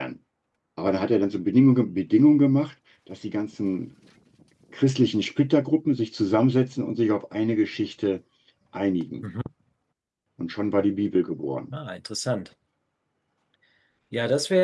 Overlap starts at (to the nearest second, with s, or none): none